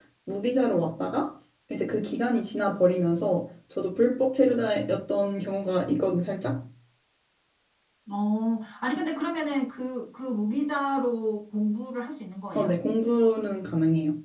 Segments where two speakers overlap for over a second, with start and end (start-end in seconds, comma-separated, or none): none